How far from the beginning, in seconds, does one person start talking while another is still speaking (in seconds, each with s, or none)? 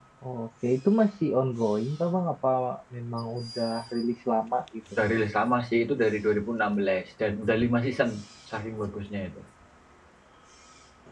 none